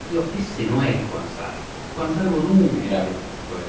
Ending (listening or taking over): listening